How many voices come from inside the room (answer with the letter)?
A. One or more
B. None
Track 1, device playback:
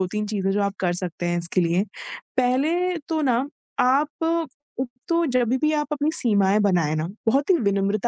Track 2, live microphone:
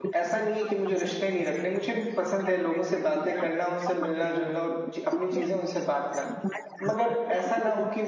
A